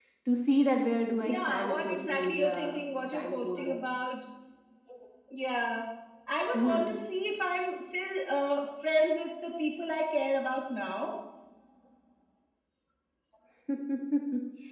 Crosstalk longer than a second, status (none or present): present